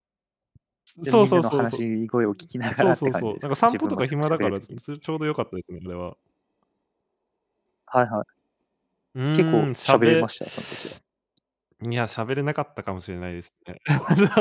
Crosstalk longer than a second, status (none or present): present